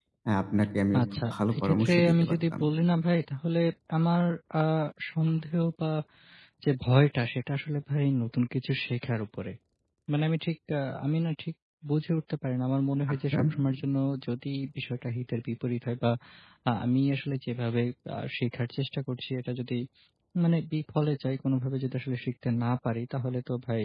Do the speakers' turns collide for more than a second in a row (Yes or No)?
Yes